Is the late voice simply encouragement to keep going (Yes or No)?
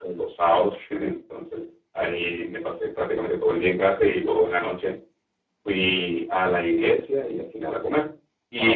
Yes